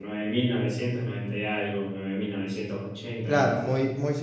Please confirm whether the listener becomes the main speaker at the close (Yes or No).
Yes